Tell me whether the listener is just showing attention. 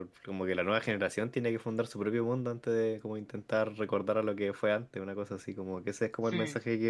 Yes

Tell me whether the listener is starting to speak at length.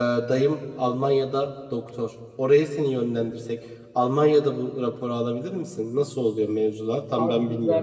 Yes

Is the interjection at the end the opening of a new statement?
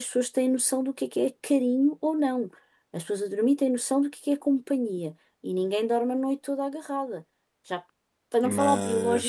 No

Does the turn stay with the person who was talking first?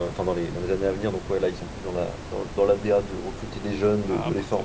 No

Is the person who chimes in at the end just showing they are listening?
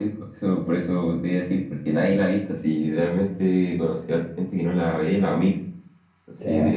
Yes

